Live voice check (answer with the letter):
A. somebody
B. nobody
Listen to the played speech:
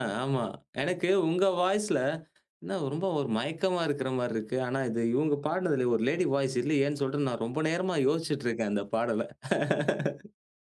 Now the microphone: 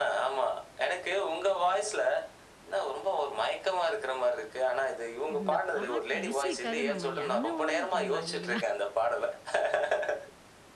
A